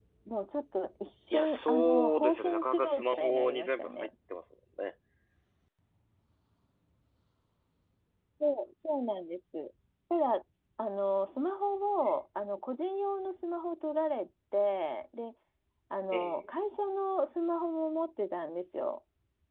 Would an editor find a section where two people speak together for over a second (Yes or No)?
Yes